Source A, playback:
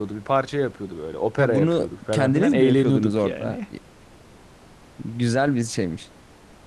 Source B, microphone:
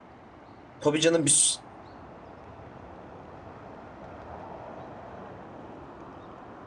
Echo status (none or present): none